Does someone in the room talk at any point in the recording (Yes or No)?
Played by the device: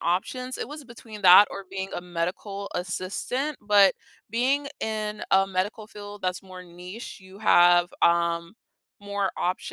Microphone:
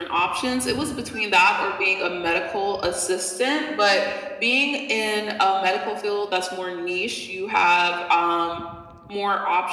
No